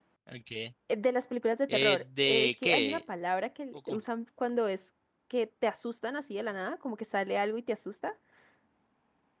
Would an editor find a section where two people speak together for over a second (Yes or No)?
Yes